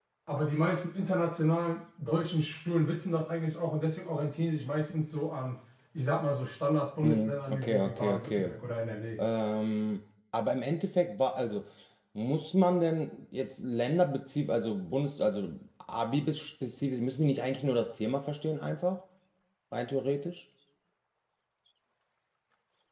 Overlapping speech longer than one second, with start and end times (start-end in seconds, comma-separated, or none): 7.0-8.5